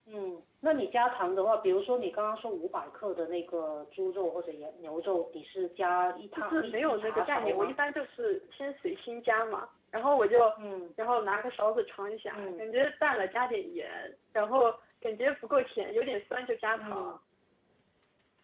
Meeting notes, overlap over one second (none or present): present